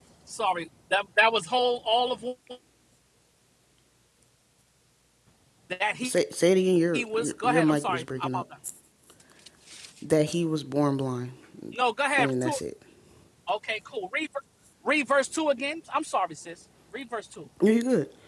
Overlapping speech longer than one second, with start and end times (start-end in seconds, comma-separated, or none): 6.9-8.4